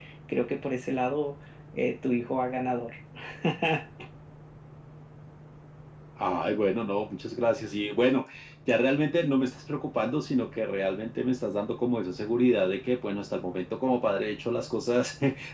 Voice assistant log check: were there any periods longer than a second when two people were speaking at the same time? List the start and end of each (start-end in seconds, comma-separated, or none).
none